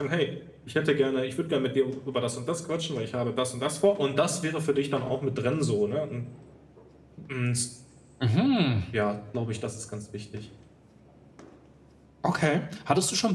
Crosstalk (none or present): none